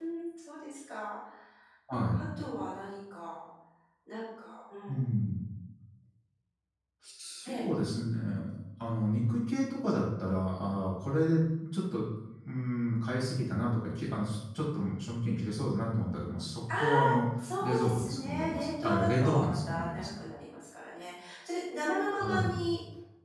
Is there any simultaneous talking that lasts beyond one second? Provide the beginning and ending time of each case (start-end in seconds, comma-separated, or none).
17.6-20.1